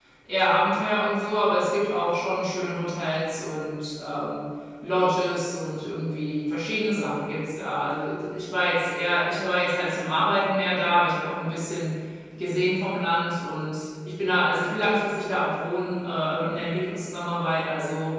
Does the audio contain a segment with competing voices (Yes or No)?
No